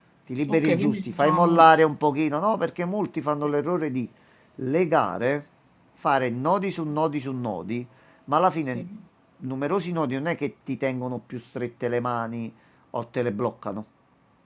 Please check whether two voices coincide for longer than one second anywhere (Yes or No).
Yes